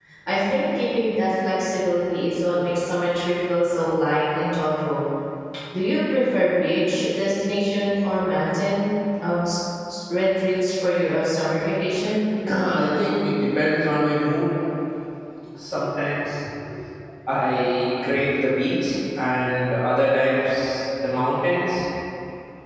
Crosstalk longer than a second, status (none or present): none